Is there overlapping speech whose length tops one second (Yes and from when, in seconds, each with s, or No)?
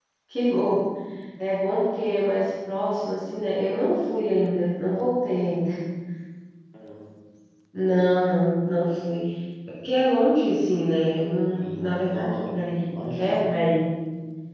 Yes, from 11.6 s